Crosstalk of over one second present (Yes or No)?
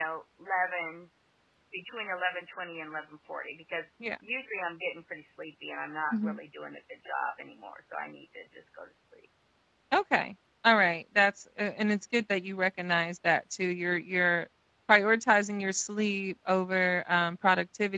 No